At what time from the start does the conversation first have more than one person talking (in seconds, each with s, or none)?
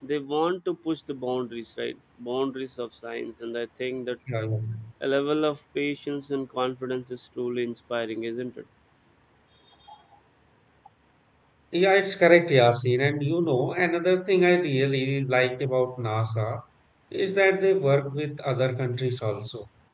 none